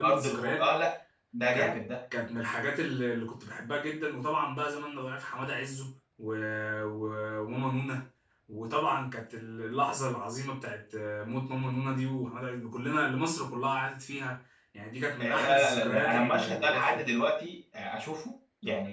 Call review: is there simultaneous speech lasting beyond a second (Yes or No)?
Yes